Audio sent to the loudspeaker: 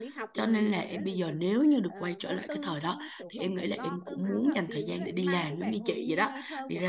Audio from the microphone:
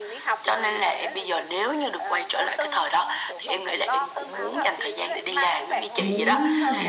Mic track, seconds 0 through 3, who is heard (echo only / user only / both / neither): echo only